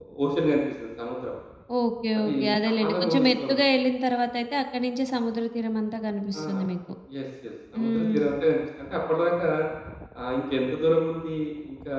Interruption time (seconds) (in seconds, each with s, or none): 2.2 s